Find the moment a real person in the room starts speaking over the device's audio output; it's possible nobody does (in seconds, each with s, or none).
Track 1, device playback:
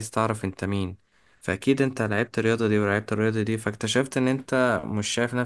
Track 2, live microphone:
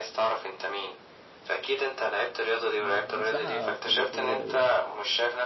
2.8 s